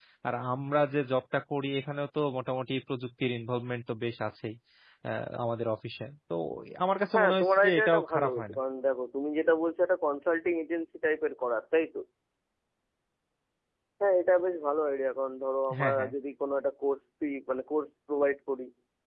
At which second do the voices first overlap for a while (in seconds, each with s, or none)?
7.1 s